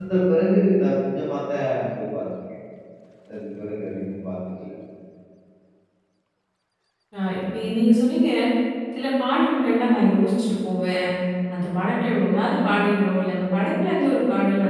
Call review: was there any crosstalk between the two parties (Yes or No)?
No